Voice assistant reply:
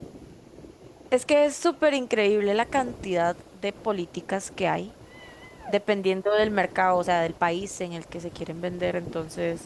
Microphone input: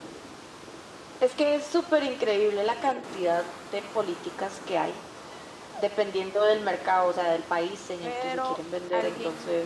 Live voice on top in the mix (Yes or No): No